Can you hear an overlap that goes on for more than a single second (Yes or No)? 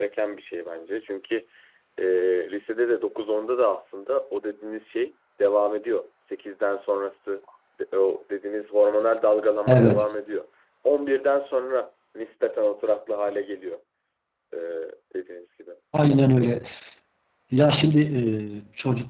No